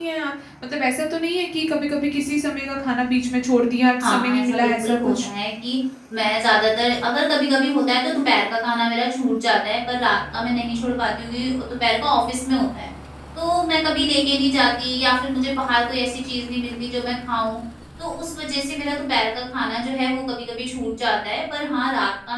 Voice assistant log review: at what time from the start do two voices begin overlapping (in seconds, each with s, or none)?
4.0 s